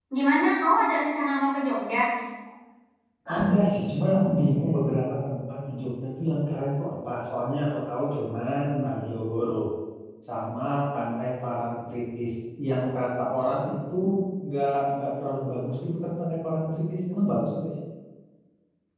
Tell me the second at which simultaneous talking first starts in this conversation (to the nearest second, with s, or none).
none